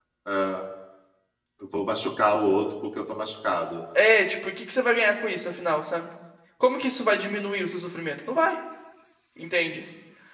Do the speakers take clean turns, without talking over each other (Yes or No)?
Yes